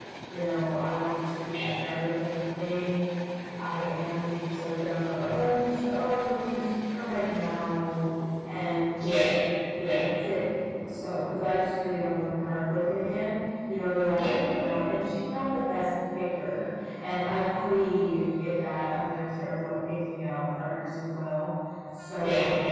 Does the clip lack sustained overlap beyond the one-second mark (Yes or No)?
Yes